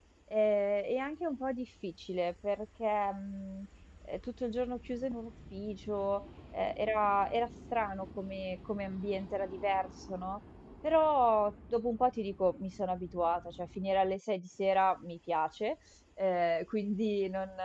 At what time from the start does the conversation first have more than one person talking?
none

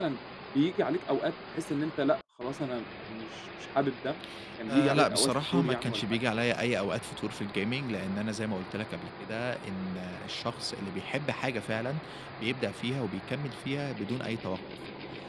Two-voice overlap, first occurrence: 4.7 s

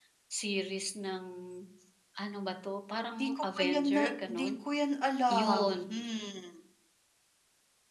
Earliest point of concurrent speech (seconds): 3.2 s

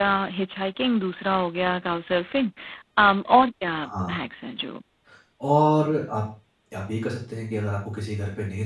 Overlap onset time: none

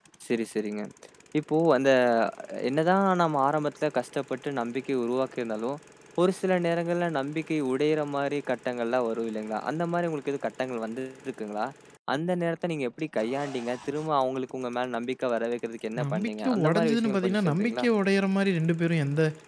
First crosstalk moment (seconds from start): 16.0 s

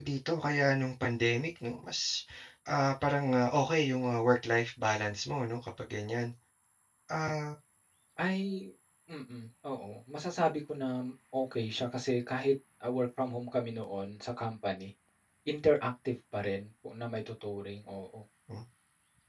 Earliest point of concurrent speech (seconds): none

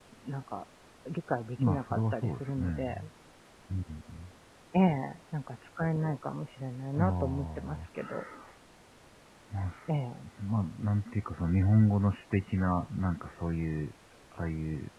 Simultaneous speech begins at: 1.6 s

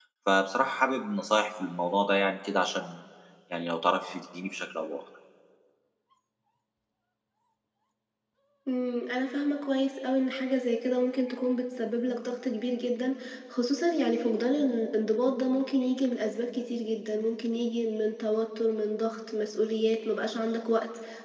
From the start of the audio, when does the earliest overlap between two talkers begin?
none

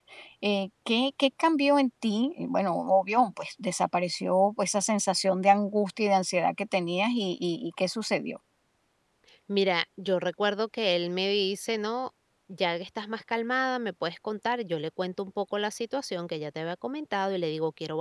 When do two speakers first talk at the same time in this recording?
none

